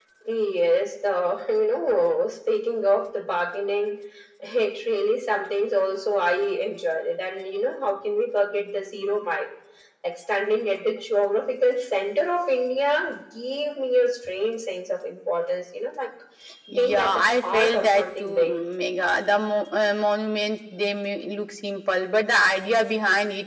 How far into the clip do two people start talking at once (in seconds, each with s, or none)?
16.7 s